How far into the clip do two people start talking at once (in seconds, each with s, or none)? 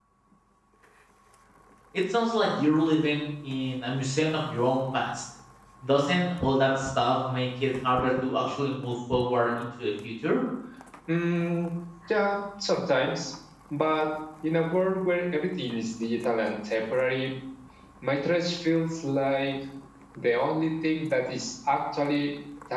none